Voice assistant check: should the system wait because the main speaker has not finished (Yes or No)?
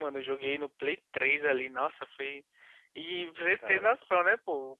Yes